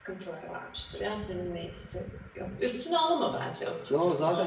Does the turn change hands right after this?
Yes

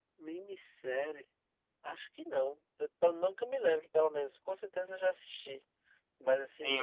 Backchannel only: No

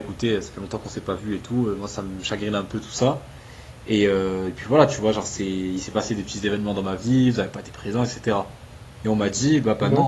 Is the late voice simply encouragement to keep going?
Yes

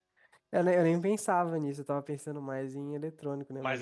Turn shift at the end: Yes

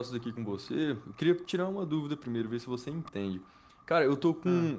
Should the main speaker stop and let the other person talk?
No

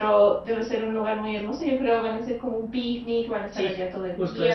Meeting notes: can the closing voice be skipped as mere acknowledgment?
No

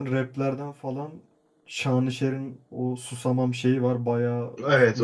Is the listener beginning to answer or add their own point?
Yes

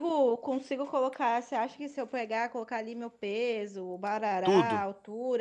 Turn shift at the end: No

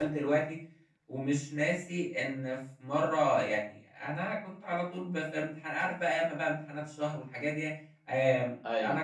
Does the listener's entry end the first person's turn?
No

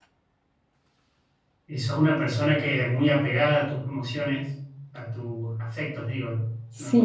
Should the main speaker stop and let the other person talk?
Yes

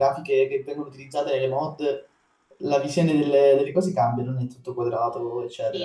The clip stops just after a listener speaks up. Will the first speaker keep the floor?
No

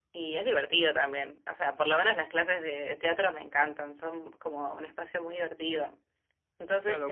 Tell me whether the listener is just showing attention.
No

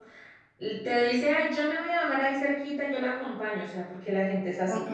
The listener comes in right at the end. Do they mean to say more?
No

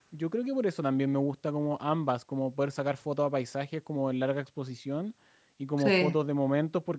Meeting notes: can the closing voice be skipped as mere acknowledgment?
Yes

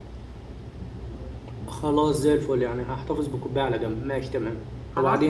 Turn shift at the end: Yes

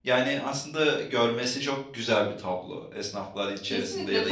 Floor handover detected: Yes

